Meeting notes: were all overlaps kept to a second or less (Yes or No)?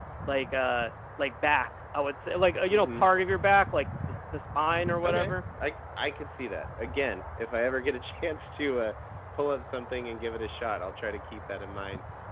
Yes